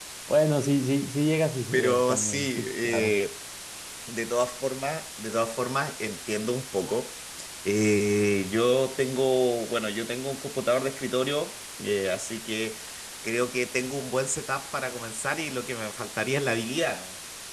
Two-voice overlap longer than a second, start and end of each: 1.7-3.1

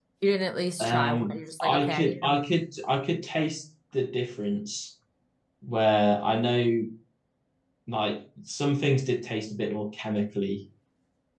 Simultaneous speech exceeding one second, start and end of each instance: 0.8-2.4

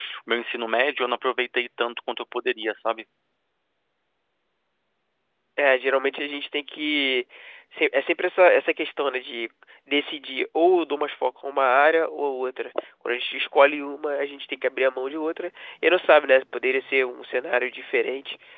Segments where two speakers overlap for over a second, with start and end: none

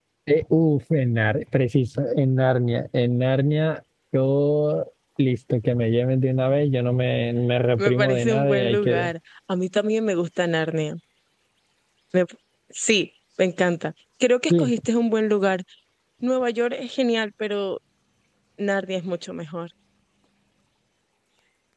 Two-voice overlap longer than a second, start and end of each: 7.8-9.1

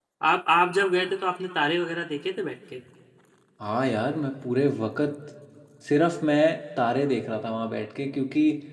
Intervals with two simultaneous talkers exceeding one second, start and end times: none

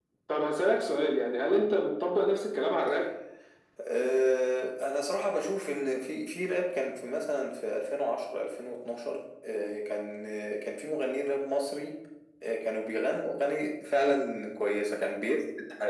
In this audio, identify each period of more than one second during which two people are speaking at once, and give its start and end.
none

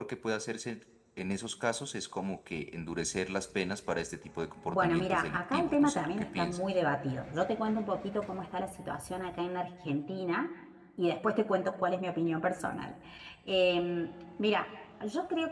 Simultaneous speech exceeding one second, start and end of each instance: 4.7-6.6

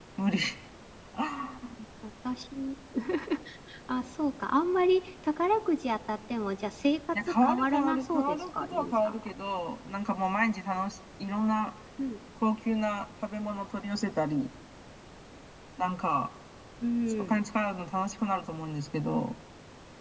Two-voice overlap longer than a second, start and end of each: 7.2-9.3

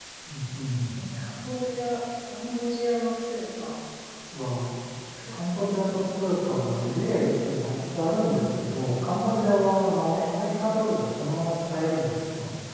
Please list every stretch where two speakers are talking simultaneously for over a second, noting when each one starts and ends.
none

